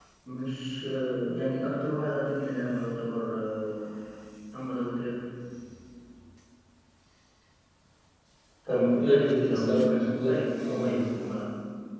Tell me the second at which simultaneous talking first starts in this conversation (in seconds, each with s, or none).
8.7 s